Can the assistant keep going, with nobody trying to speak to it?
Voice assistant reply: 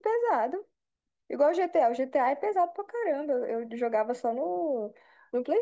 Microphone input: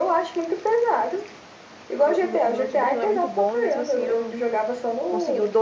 No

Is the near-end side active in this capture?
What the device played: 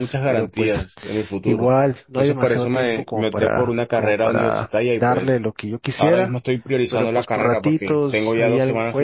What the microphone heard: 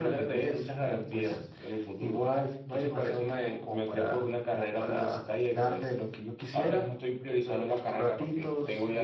No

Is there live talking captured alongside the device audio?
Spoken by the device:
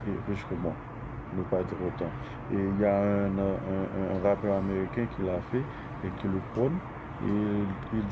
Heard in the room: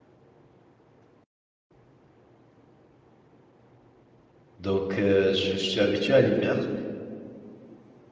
Yes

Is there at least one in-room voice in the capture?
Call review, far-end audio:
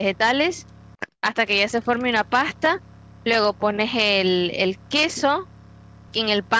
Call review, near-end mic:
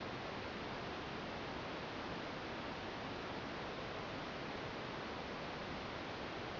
No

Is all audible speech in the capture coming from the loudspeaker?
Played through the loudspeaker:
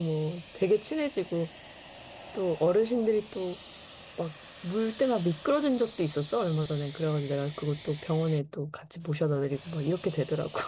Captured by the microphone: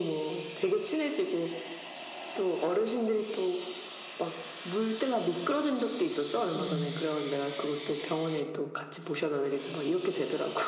No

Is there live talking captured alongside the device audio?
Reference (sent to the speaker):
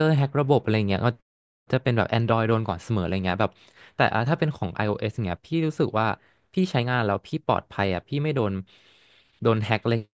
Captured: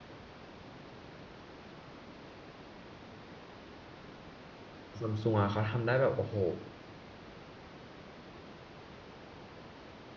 Yes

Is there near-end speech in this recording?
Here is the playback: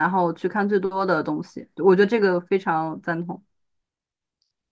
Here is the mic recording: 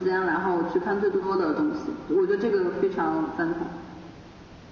No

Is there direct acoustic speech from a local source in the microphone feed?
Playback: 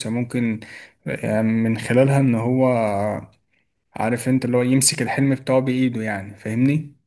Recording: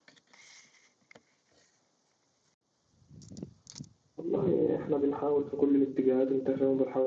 Yes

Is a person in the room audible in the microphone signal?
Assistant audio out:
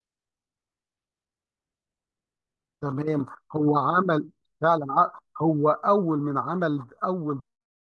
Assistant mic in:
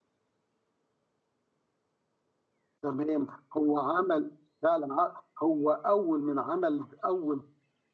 No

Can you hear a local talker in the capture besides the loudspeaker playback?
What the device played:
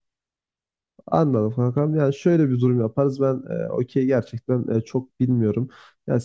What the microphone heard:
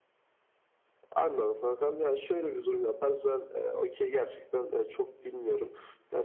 No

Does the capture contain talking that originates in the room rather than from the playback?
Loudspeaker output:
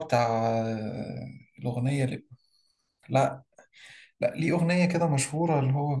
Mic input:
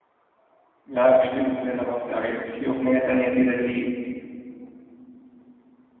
Yes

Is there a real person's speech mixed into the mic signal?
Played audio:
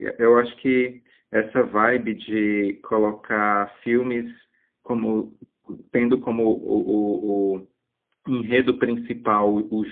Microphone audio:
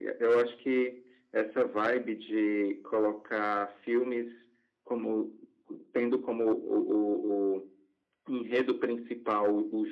No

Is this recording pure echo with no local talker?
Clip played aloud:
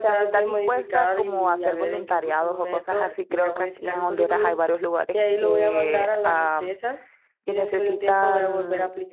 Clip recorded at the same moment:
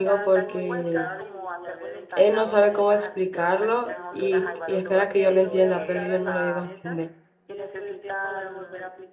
No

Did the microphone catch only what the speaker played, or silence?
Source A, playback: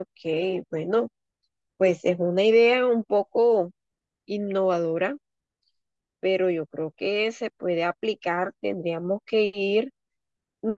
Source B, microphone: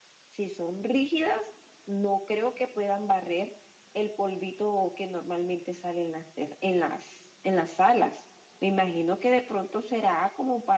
No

